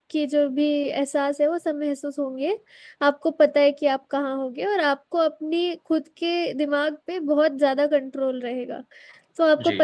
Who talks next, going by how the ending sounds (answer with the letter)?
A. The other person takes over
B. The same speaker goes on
B